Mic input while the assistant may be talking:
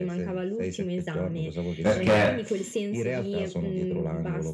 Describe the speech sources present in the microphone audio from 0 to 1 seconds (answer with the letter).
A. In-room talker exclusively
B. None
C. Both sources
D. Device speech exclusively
D